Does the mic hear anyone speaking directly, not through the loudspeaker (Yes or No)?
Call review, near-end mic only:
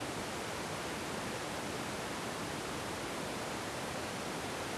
No